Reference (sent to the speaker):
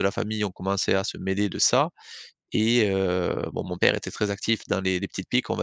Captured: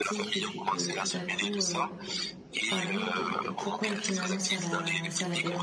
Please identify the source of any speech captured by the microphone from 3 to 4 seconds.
both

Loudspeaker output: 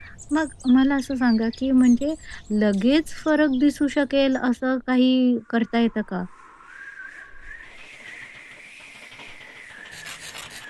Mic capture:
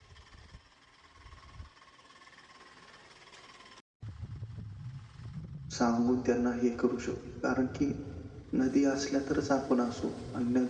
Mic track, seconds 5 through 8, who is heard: user only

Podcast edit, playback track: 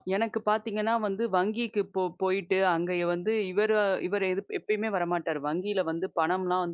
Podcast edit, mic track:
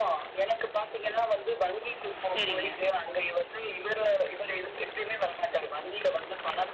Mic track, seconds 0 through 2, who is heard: echo only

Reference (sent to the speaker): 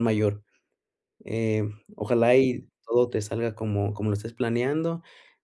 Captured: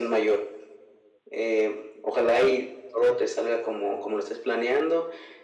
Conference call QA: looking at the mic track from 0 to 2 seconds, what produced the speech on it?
echo only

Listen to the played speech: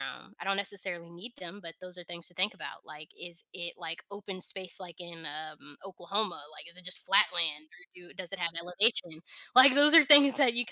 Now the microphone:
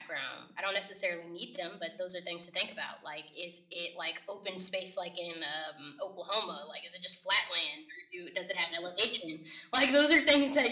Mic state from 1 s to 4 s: echo only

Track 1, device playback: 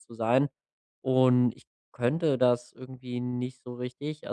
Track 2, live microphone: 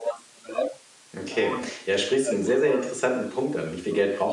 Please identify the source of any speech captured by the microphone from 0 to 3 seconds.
both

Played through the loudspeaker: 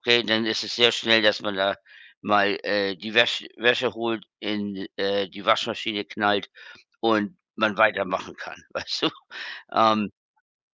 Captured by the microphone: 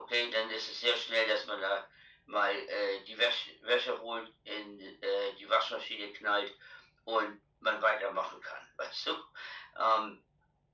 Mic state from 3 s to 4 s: echo only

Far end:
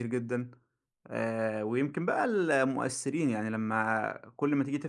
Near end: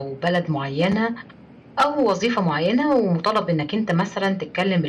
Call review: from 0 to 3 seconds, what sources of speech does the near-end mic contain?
user only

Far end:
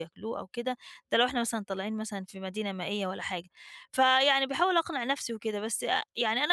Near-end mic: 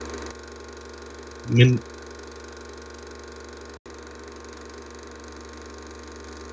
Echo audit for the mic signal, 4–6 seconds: neither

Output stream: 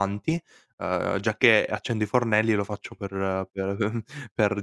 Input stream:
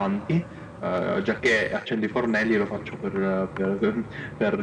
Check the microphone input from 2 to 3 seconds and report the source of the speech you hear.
echo only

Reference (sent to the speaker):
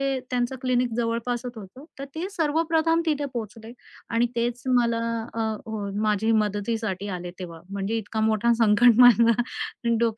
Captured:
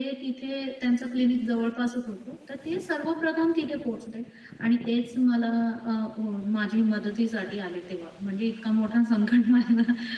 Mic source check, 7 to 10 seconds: echo only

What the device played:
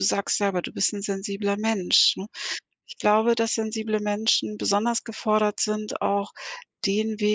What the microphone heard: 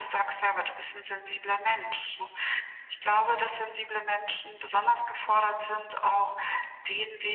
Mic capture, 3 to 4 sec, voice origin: echo only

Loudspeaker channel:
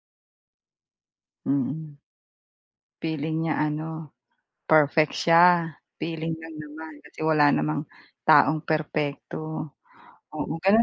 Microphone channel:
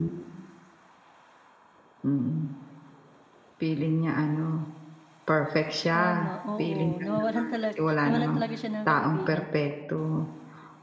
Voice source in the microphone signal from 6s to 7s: both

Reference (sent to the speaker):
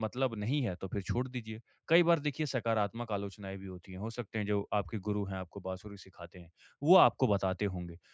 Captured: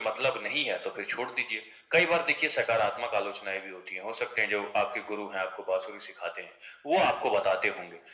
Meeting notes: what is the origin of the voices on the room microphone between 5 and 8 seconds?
echo only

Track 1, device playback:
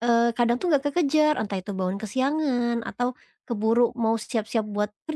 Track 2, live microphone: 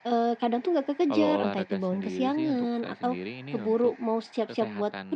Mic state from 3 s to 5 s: both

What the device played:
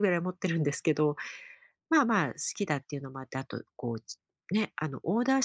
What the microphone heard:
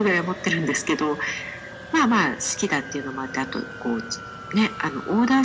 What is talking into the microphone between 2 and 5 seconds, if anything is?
echo only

